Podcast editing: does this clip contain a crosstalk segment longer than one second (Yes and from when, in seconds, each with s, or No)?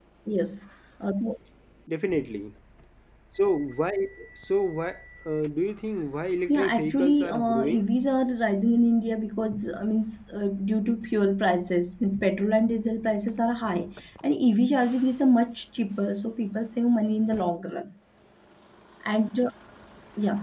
Yes, from 6.5 s